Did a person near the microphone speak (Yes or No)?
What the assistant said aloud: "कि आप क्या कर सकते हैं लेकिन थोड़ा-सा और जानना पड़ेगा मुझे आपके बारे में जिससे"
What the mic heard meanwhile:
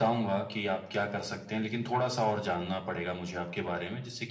No